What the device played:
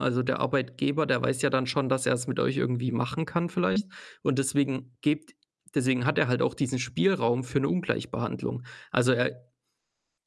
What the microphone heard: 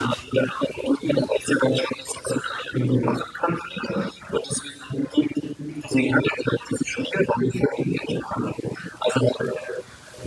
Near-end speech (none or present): none